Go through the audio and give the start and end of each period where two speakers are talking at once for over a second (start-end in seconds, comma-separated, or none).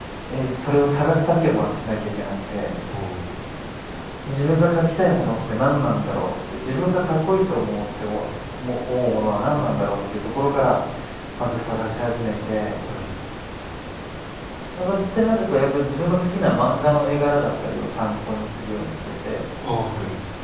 none